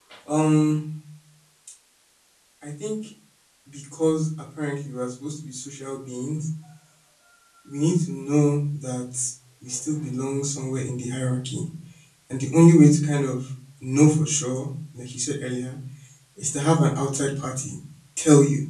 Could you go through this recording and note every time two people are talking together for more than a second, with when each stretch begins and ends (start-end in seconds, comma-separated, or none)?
none